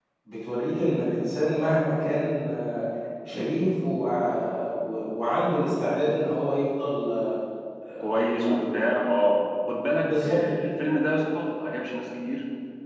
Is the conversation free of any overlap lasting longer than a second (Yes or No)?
Yes